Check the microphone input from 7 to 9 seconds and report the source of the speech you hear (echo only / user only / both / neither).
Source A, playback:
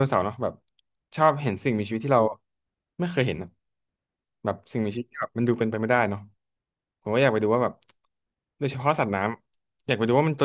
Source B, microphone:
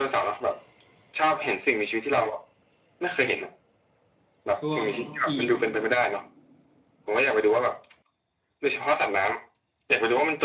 echo only